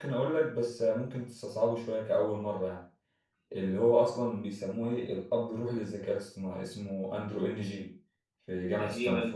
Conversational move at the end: taking over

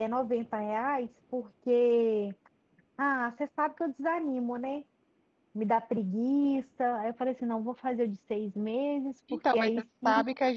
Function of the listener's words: taking over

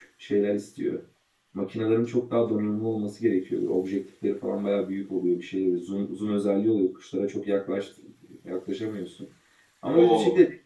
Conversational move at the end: listening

